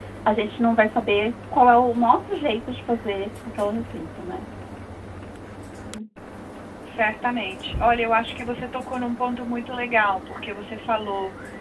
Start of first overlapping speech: none

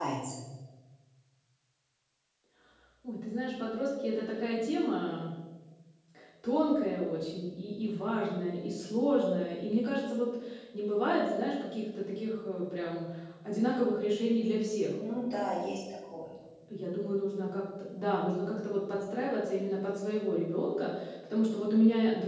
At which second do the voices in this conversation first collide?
none

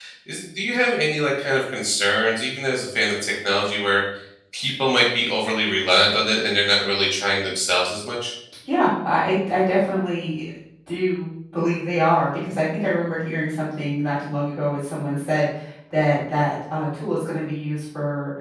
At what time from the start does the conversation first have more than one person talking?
none

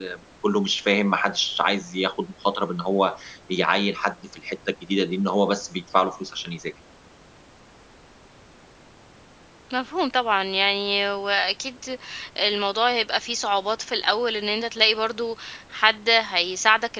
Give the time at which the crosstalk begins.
none

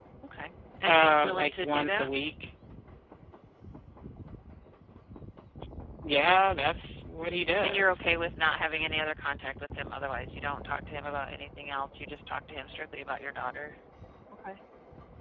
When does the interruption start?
0.9 s

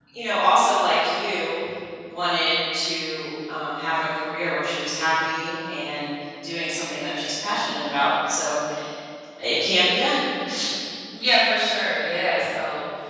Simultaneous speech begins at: none

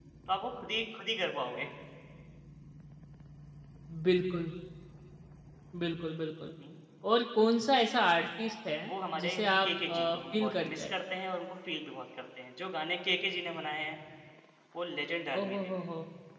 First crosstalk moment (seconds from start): 8.9 s

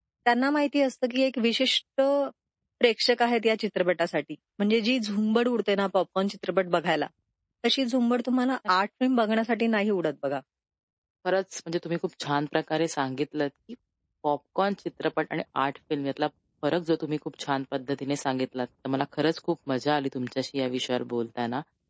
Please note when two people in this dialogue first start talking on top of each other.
none

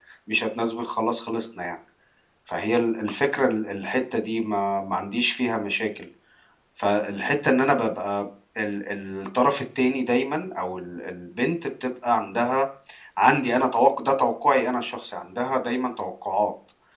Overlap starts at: none

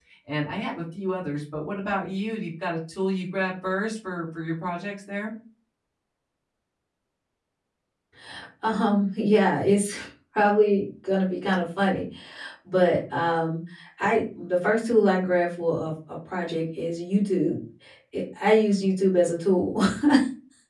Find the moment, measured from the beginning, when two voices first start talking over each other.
none

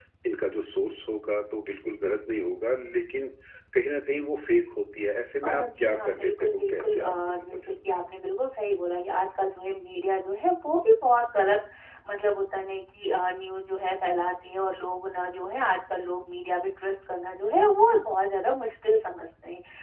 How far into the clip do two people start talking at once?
5.4 s

